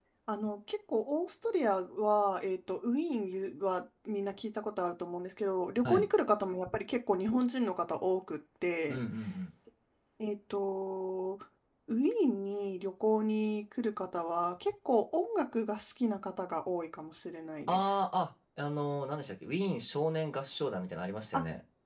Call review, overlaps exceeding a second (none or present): none